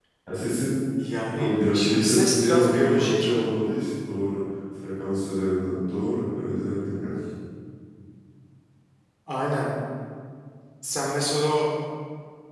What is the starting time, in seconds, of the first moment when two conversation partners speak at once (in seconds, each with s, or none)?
1.4 s